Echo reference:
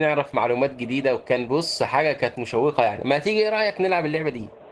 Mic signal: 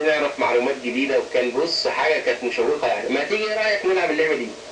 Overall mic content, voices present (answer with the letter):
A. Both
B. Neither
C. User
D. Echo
D